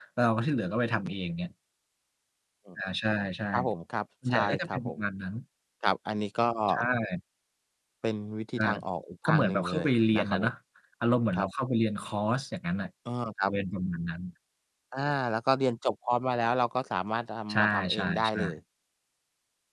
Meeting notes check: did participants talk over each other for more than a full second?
Yes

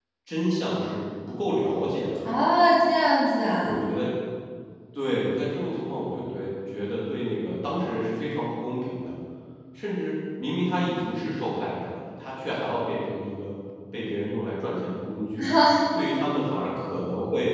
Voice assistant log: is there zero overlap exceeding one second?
Yes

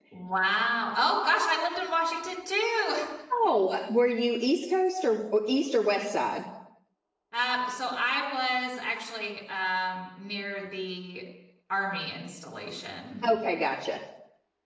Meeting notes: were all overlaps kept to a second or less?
Yes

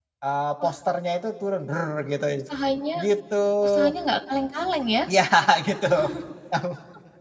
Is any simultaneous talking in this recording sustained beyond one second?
No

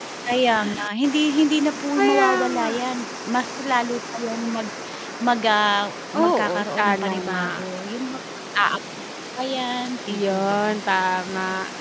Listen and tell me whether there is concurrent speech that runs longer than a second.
Yes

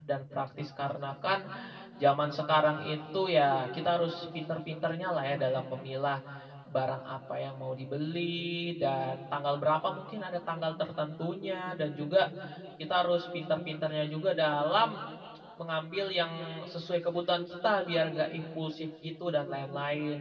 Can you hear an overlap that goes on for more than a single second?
No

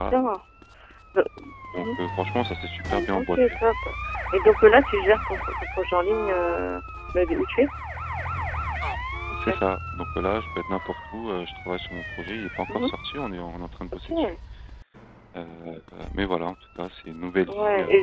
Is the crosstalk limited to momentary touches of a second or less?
Yes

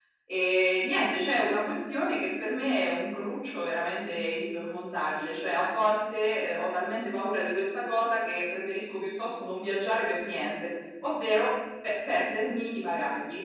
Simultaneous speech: No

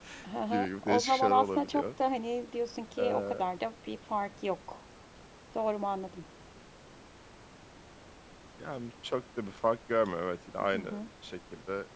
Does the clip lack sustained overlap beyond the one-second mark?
No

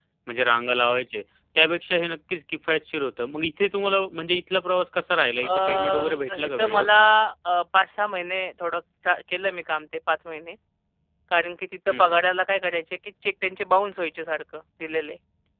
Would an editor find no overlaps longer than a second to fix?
No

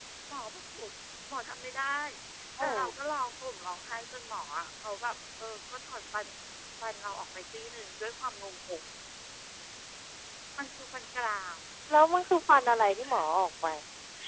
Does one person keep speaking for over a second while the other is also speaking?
No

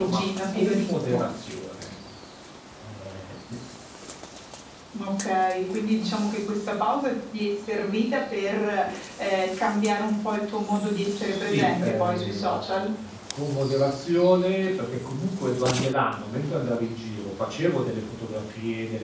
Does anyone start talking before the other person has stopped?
Yes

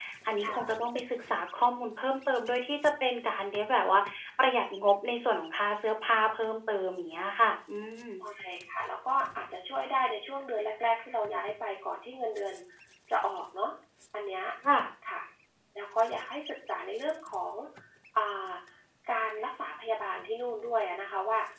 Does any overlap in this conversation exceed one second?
No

